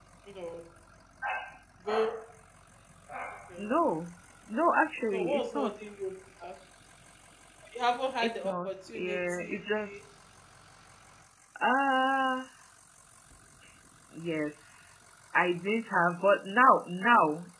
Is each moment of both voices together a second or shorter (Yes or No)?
No